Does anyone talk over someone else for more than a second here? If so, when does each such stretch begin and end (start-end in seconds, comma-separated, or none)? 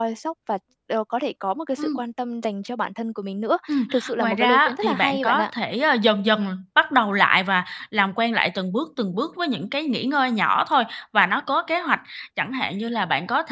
3.7-5.5